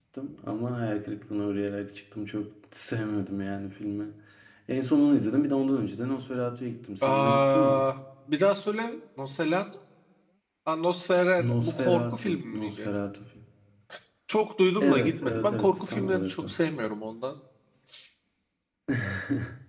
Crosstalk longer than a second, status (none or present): present